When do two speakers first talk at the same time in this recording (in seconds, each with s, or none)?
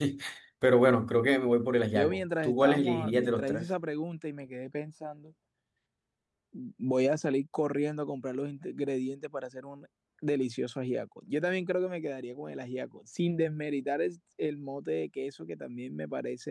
1.9 s